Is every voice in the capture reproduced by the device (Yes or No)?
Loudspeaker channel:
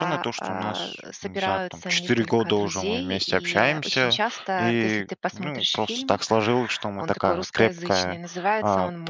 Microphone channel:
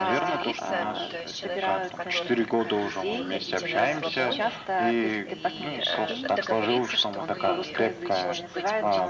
No